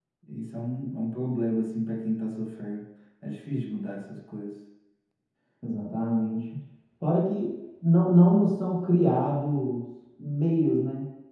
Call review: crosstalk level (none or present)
none